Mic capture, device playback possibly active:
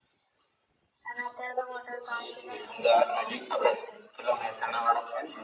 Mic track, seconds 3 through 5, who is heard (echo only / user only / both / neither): echo only